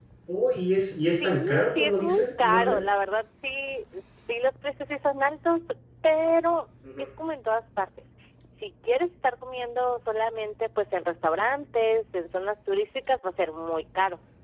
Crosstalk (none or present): present